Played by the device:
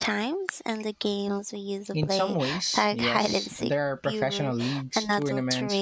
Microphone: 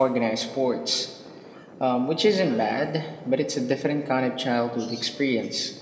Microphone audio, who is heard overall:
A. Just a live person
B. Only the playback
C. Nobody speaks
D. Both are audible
A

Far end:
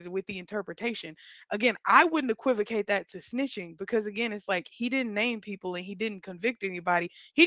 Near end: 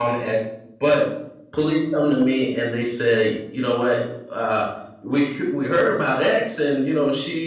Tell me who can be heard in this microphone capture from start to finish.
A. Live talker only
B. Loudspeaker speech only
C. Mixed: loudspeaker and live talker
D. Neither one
A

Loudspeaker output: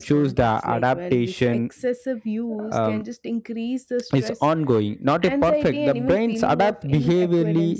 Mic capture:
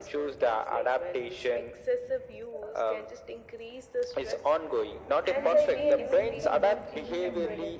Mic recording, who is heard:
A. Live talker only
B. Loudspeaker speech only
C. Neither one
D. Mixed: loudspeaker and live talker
D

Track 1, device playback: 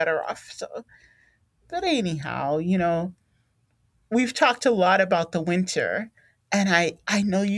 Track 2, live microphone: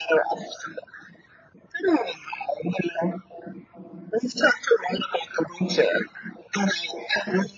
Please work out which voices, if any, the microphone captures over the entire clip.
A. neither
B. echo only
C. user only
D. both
B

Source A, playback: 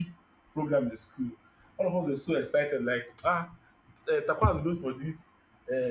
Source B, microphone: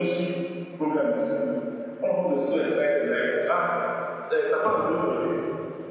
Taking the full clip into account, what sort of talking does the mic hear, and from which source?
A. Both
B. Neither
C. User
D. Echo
D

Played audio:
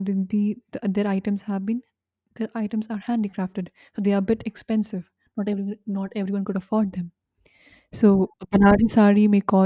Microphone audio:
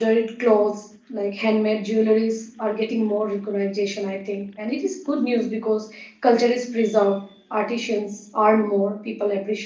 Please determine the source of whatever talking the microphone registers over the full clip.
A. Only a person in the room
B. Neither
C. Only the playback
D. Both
A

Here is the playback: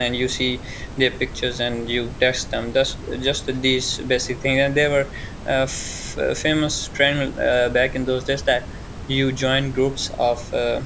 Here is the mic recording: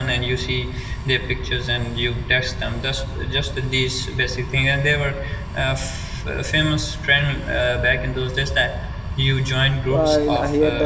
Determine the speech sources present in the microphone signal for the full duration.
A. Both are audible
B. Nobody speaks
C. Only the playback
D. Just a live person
A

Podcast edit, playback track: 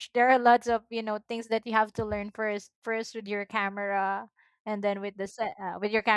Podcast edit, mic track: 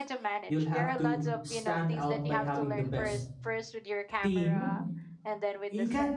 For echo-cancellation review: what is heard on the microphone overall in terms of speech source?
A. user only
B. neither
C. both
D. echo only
C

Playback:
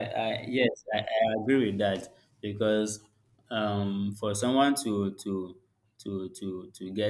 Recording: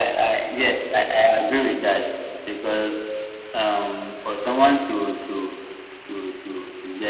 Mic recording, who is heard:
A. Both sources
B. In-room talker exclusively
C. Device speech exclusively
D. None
C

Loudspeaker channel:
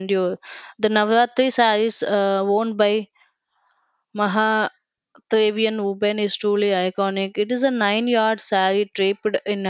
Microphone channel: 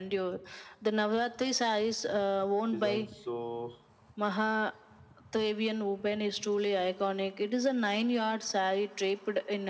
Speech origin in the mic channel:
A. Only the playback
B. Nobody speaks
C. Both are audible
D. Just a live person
C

